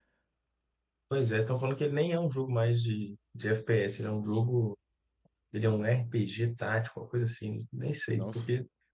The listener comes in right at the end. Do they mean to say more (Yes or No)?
No